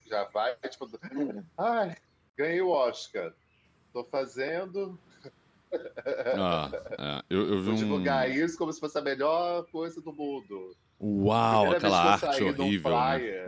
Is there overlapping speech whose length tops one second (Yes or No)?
Yes